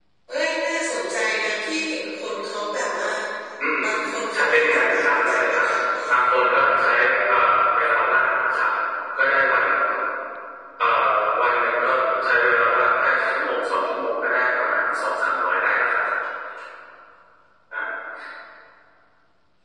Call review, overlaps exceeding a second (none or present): present